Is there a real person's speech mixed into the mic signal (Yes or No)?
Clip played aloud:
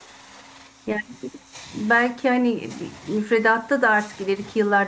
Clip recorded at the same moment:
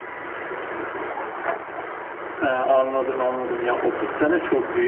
Yes